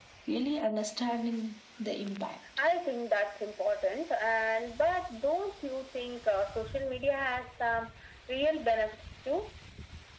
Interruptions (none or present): none